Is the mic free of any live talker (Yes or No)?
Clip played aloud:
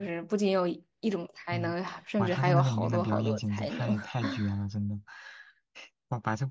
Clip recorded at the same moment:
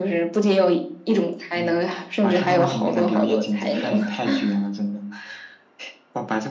Yes